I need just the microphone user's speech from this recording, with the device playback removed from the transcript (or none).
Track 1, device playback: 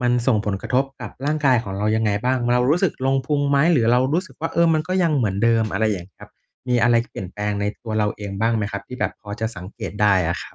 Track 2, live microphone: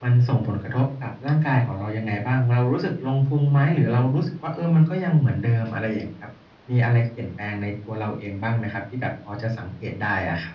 none